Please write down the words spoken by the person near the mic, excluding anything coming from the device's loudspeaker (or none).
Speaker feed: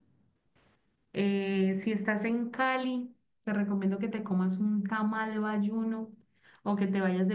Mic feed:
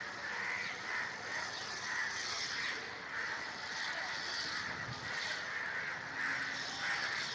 none